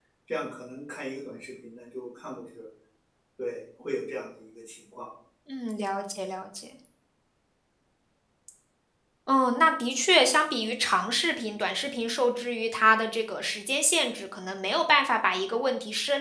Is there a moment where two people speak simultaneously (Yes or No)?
No